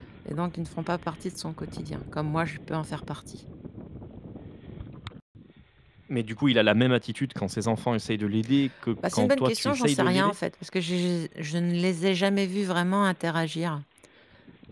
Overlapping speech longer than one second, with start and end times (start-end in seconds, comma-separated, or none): 9.1-10.3